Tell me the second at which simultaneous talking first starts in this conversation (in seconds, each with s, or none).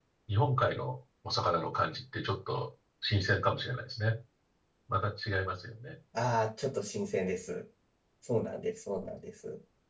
none